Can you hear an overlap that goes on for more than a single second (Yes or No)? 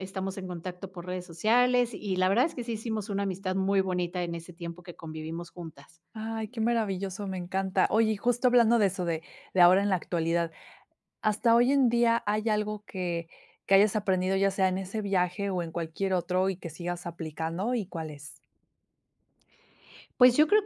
No